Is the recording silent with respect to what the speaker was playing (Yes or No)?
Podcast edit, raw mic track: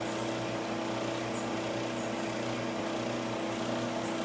Yes